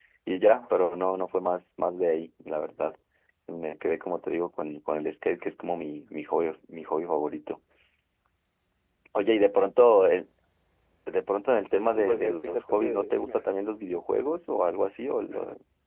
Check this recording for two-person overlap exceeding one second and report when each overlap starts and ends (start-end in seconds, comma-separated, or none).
11.9-13.4